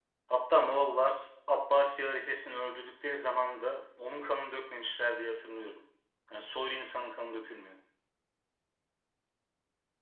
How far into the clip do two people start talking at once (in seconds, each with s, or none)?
none